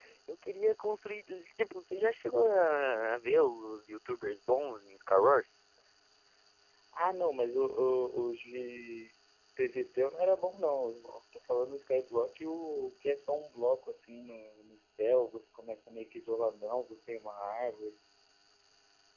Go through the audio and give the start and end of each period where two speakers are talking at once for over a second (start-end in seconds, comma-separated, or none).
none